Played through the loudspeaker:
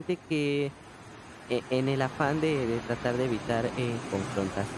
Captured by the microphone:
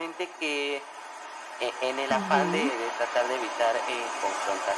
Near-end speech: present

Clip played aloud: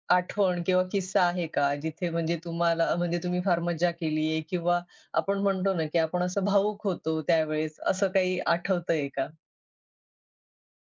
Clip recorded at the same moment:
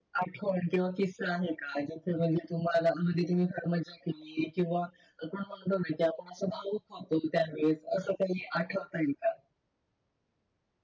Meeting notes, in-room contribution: none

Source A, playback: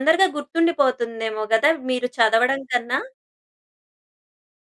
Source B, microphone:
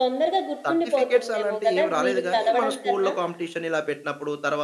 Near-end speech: present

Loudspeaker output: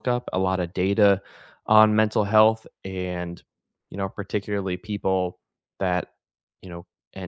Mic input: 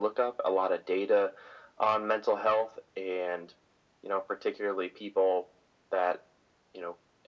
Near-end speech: none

